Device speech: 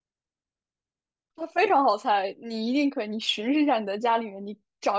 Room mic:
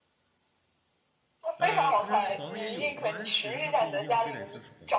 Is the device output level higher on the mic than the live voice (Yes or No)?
Yes